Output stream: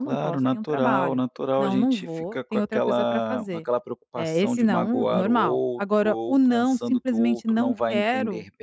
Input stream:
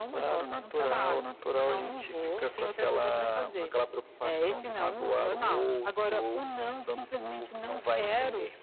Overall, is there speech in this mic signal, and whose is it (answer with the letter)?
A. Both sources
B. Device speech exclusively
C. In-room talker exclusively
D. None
B